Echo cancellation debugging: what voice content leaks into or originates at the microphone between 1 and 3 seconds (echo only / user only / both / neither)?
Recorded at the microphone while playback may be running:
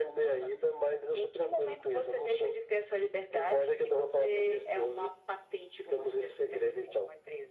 echo only